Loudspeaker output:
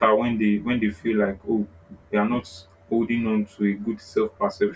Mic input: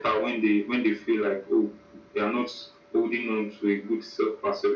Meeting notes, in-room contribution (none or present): none